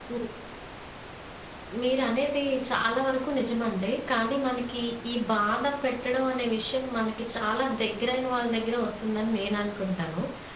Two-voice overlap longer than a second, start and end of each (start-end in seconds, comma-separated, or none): none